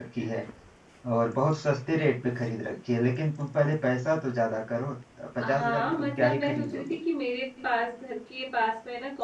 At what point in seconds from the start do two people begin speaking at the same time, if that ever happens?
5.4 s

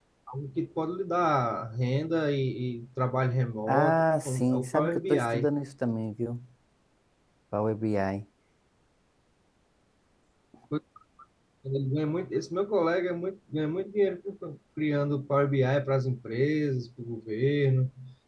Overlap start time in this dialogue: 3.7 s

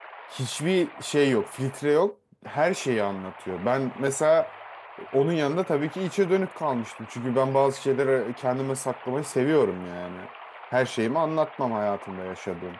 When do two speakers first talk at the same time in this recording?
none

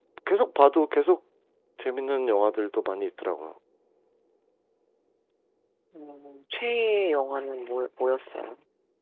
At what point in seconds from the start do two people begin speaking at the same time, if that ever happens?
none

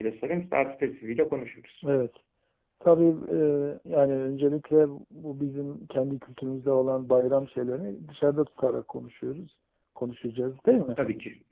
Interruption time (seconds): none

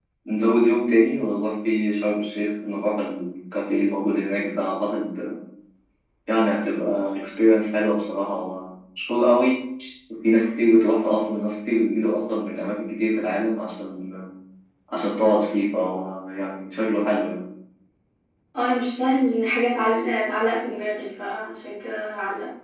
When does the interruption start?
none

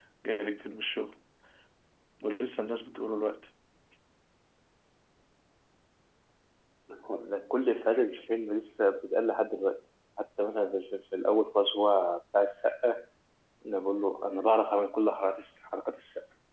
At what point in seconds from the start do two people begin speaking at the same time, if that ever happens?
none

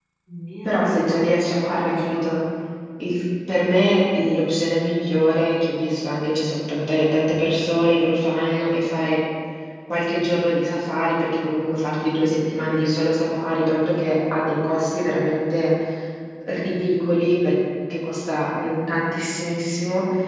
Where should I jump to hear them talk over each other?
0.7 s

